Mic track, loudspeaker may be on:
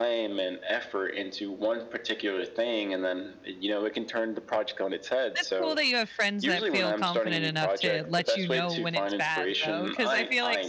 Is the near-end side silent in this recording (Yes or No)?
No